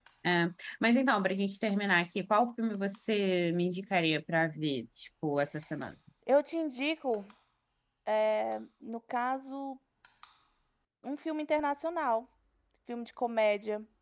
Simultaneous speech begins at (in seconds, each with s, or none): none